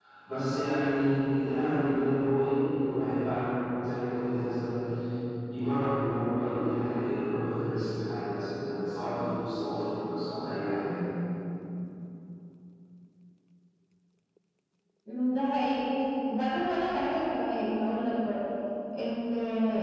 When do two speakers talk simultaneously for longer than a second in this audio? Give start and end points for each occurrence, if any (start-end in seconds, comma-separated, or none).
none